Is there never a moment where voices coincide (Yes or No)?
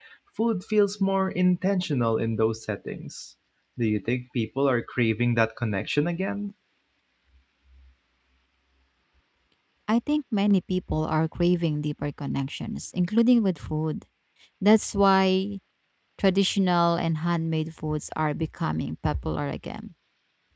Yes